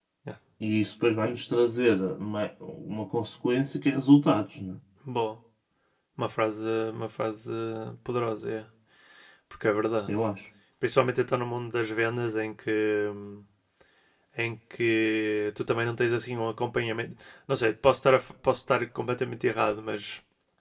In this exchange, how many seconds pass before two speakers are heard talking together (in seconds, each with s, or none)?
none